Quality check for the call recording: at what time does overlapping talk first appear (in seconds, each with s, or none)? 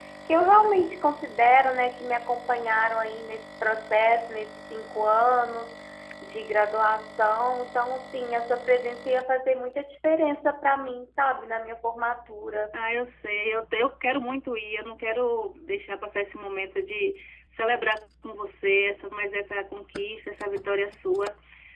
none